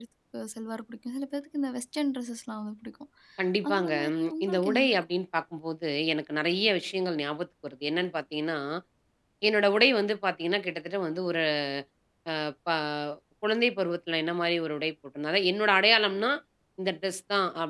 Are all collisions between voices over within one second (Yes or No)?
No